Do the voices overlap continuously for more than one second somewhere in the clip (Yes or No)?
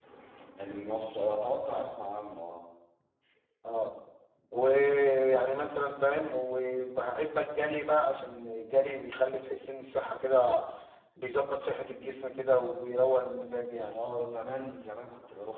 No